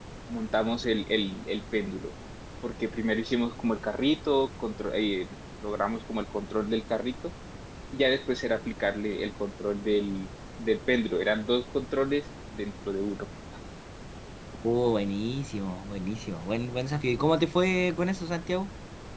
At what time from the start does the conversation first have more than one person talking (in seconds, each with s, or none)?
none